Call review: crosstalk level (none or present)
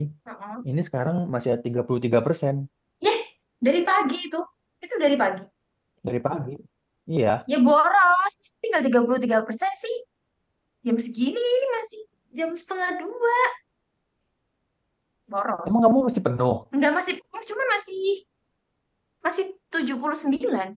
none